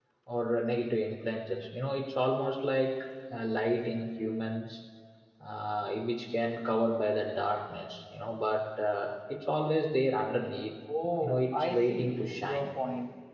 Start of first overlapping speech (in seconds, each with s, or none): 11.2 s